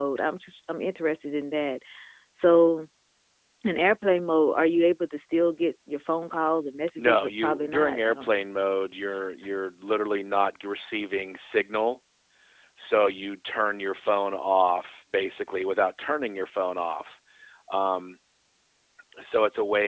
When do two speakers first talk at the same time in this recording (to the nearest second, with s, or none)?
7 s